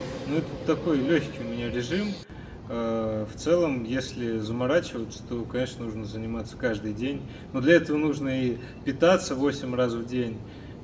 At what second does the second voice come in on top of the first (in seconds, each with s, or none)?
none